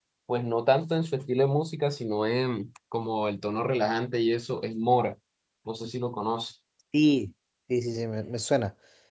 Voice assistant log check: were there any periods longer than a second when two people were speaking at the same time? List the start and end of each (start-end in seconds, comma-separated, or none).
none